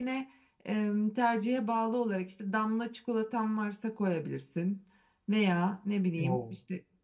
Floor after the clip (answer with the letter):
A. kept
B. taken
A